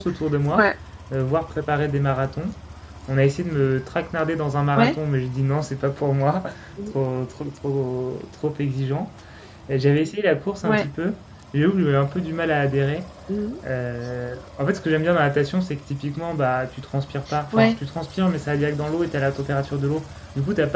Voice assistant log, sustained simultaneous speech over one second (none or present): none